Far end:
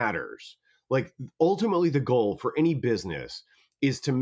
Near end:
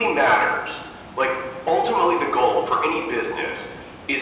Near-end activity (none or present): none